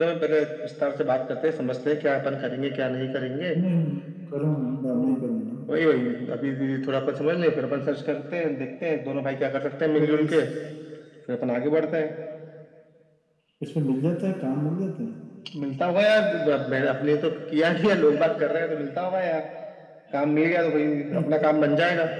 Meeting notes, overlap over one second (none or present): none